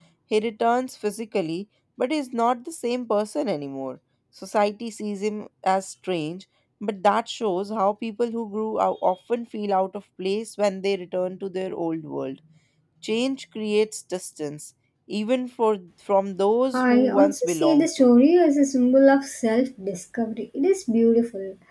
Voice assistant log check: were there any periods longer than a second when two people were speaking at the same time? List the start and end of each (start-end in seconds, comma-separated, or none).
16.7-18.1